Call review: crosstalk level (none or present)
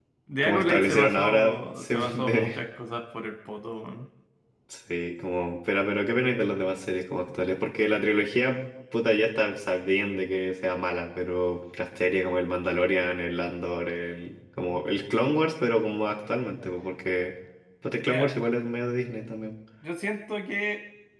present